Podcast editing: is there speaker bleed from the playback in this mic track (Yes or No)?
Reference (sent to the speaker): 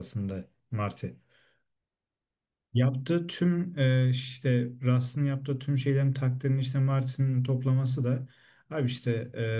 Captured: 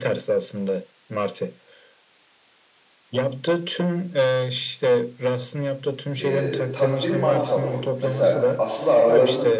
Yes